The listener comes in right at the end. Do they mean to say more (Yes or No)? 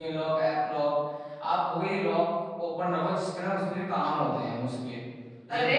Yes